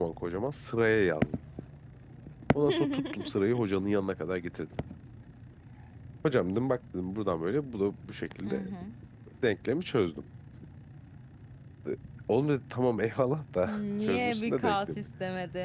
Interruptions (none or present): present